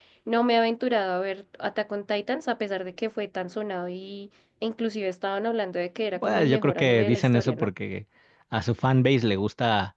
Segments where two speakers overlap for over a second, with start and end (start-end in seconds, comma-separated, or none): 6.2-7.7